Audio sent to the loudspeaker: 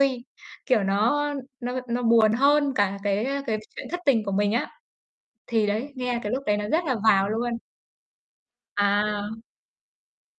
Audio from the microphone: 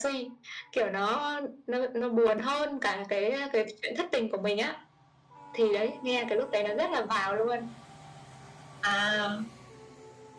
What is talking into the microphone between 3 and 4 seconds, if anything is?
echo only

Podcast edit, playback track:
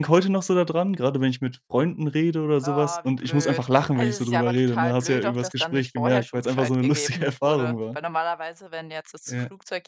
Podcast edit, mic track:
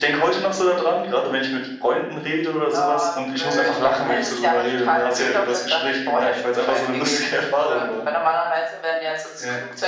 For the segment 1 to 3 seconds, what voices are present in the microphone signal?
echo only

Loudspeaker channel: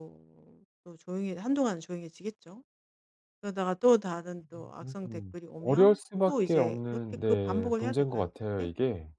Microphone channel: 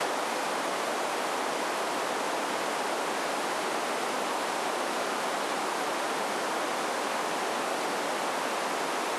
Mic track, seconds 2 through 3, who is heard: neither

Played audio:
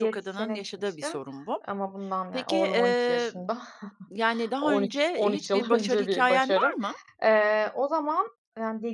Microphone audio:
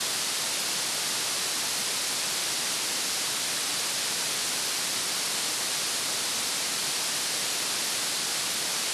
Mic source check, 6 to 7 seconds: neither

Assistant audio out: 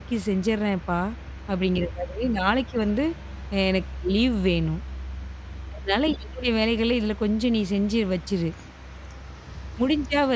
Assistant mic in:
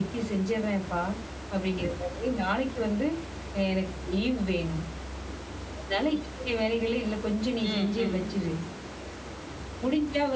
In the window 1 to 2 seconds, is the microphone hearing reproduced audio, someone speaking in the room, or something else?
echo only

